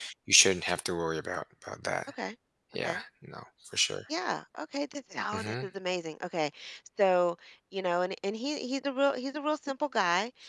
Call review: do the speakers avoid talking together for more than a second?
Yes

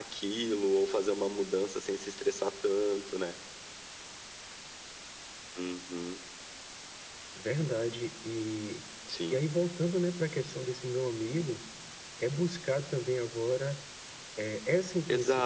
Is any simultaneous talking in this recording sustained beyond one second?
No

